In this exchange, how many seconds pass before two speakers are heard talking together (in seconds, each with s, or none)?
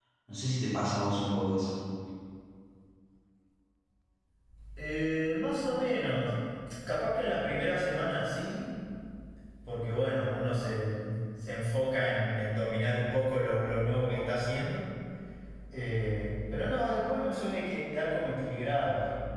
none